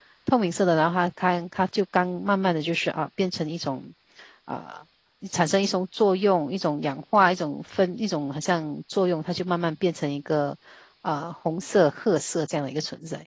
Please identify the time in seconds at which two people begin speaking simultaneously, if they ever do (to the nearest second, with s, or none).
none